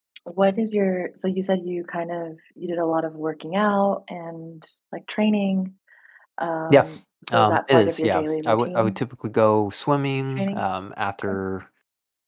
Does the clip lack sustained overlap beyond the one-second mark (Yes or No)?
No